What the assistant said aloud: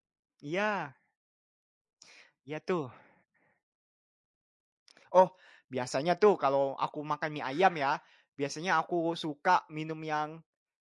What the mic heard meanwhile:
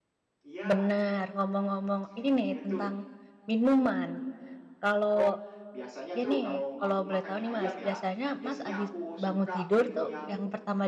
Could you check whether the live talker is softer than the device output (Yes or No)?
No